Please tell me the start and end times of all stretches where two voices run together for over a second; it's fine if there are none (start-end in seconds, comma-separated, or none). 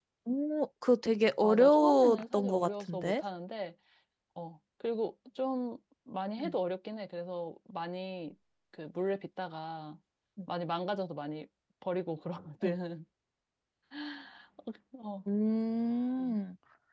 1.4-3.2